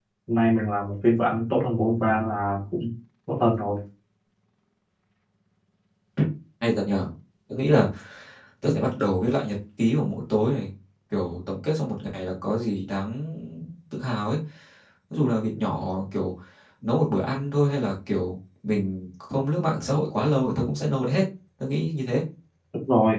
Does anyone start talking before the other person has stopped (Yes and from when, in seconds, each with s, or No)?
No